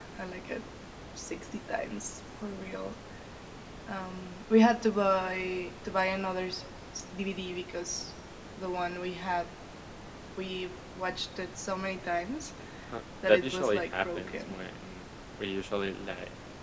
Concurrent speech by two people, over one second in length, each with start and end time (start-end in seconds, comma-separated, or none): 13.3-14.6